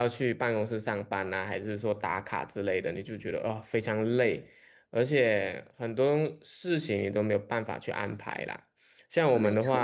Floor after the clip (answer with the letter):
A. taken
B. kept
B